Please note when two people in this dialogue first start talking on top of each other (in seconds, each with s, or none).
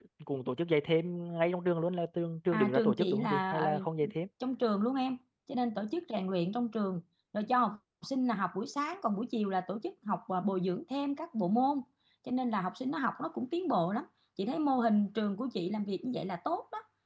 2.5 s